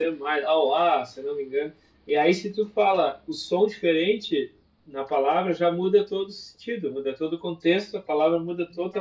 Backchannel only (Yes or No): Yes